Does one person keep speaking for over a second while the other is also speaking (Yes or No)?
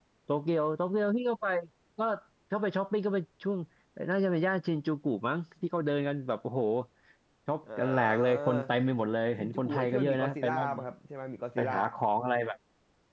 Yes